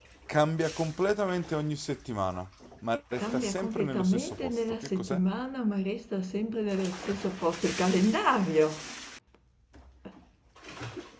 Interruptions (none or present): present